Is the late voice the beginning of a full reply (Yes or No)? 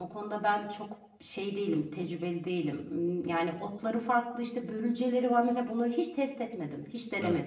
Yes